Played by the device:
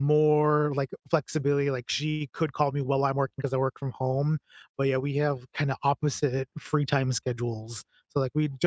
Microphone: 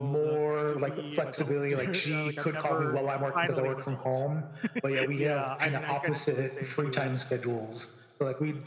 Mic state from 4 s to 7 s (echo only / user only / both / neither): both